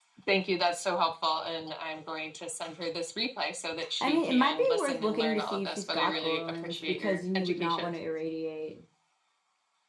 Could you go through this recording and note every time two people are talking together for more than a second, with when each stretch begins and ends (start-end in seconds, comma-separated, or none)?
4.0-7.9